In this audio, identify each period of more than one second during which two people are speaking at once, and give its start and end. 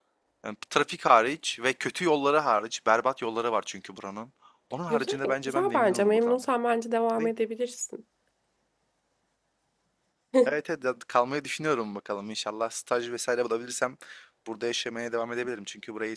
4.9-6.4

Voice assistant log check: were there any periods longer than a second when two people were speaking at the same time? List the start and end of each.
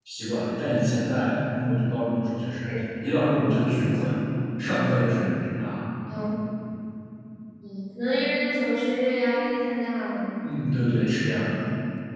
none

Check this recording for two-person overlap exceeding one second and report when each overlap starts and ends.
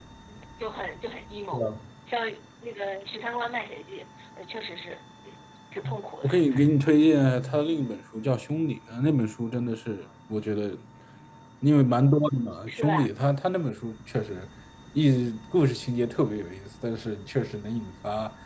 none

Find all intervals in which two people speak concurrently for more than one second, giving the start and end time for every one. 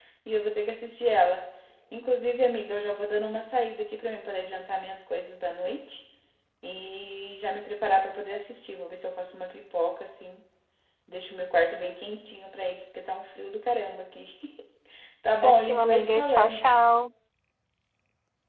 15.4-16.6

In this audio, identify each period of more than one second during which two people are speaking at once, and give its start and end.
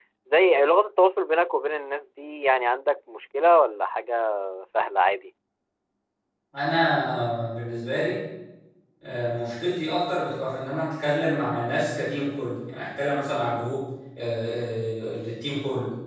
none

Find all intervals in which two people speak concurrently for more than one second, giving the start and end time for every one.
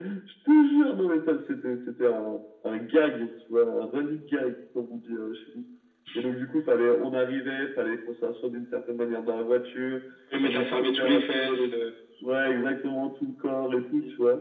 10.4-11.7

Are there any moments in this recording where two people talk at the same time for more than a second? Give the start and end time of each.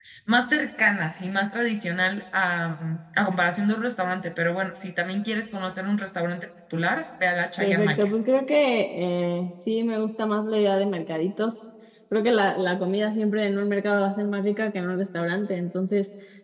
none

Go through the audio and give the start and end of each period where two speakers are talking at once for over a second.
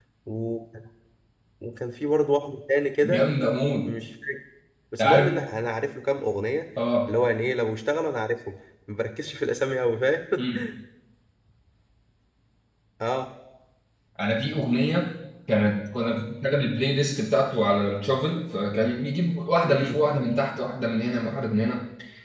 none

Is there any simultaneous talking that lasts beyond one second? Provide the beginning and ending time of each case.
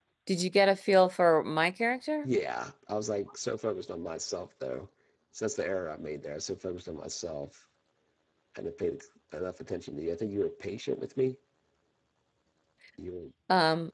none

